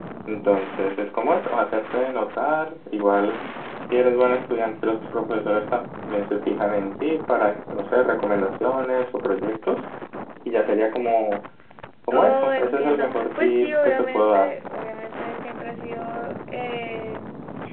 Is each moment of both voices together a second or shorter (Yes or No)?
No